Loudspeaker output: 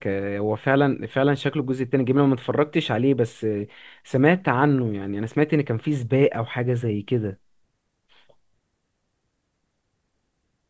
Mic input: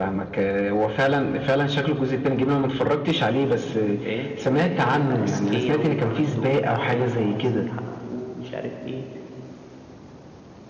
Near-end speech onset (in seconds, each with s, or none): 4.0 s